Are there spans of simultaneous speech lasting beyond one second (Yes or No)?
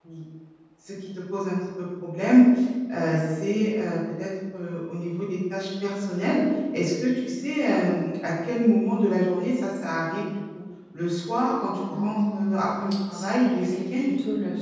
Yes